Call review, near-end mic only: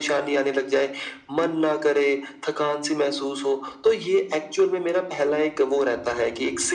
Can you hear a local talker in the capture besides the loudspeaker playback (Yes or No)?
No